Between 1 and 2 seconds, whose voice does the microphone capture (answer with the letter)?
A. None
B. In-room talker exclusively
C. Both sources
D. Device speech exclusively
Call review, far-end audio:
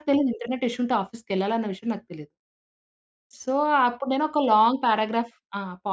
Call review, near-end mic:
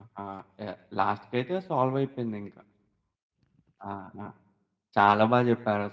B